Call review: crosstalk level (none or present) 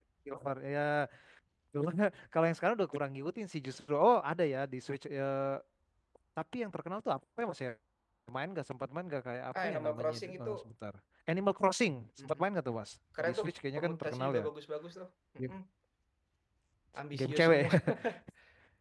present